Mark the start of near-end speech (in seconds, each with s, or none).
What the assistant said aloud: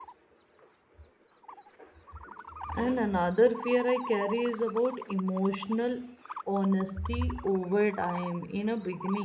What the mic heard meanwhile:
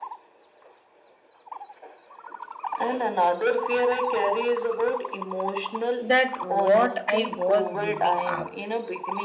6.0 s